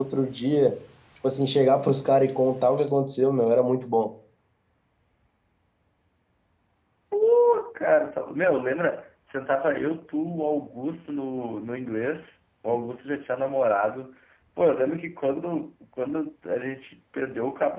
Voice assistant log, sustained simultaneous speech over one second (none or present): none